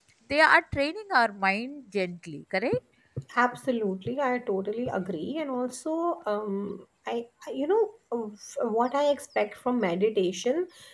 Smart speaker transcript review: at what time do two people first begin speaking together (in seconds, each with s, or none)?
none